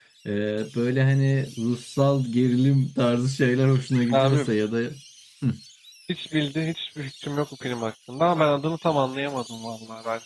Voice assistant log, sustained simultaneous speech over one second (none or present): none